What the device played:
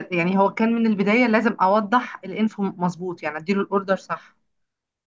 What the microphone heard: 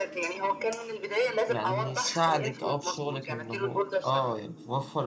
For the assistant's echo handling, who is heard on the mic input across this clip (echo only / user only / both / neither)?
both